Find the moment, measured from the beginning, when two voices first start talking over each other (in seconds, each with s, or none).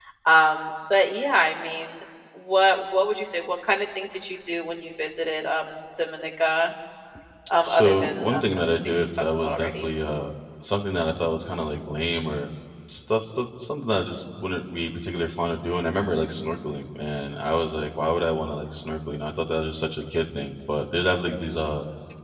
7.6 s